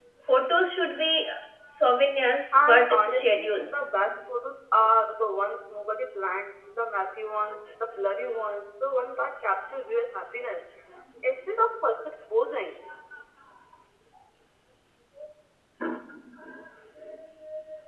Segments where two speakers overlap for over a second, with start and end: 2.5-3.9

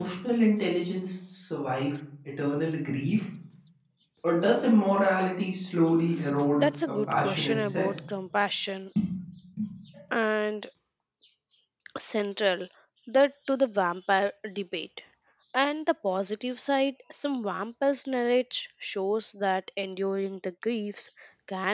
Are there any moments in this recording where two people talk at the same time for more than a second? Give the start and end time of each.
6.6-7.9

